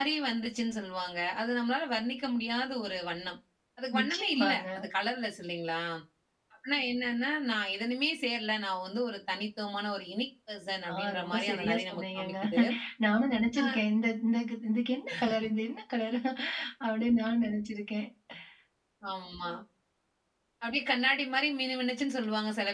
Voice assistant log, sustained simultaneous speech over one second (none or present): present